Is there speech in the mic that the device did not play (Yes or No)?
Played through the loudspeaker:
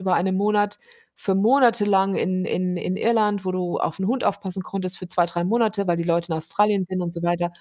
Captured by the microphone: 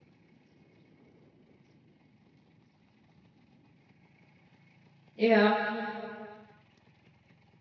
Yes